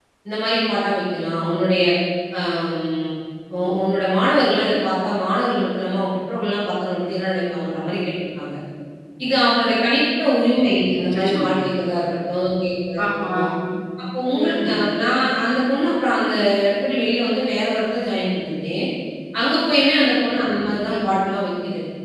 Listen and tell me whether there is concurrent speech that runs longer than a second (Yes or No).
No